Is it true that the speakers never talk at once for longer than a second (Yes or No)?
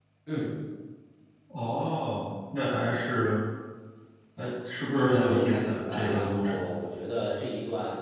No